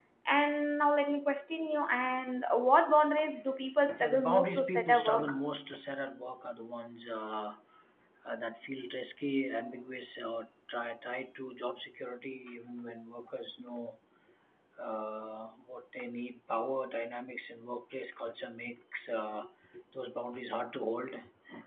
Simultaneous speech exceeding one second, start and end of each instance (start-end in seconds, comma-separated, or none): 4.0-5.3